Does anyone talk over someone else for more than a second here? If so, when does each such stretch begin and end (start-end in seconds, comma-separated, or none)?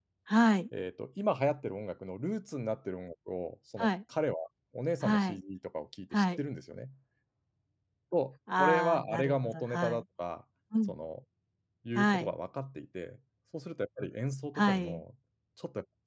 8.6-10.0